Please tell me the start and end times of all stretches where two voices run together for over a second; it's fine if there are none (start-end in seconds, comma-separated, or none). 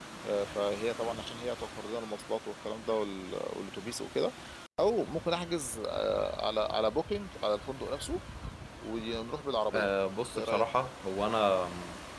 none